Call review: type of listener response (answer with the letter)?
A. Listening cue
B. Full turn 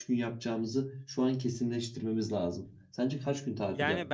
B